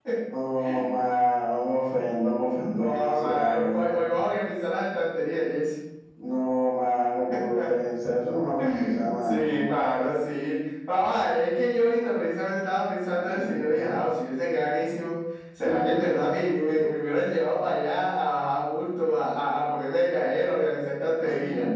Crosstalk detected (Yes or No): Yes